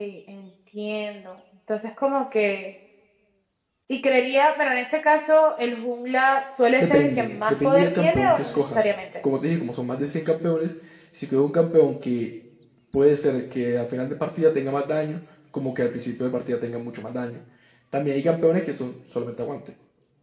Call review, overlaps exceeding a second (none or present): present